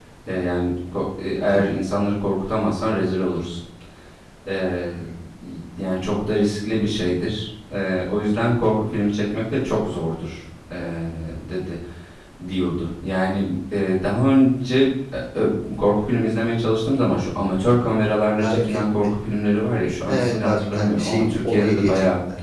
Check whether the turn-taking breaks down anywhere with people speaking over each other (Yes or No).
Yes